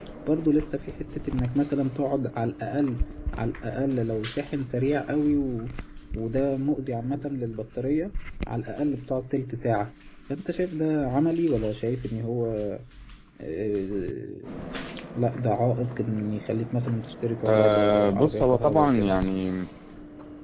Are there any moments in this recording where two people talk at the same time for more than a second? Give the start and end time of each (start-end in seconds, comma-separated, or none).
17.4-19.1